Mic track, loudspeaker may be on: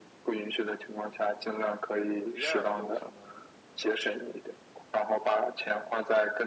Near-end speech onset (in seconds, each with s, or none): 2.2 s